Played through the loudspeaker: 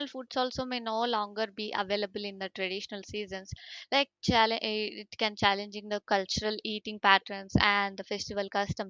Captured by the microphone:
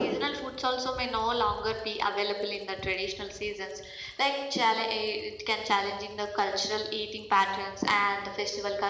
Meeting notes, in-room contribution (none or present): none